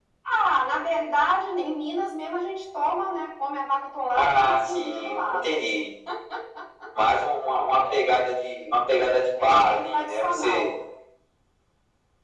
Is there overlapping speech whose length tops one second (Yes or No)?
Yes